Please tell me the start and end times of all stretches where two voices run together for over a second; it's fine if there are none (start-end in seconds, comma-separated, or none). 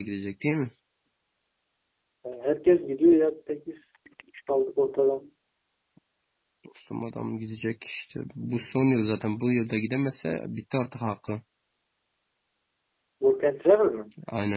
none